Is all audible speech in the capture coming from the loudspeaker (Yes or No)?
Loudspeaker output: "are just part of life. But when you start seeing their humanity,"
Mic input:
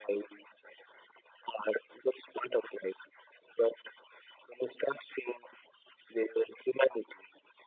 Yes